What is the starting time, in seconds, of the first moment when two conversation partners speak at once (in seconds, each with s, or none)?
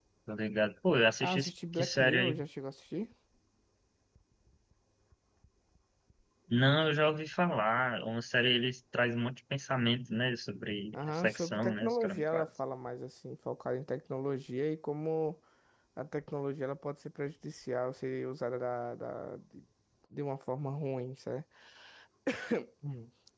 1.2 s